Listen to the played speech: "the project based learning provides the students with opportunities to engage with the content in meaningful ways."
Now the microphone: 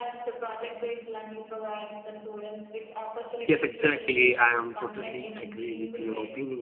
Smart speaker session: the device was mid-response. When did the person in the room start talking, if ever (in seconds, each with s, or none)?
3.4 s